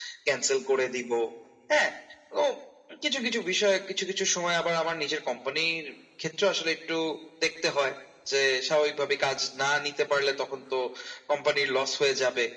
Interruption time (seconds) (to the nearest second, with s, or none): none